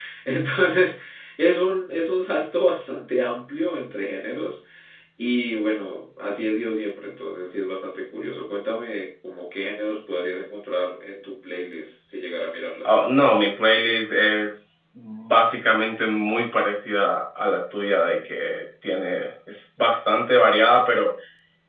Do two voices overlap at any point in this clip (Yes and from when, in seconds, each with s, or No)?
No